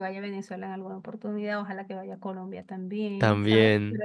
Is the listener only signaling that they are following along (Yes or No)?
Yes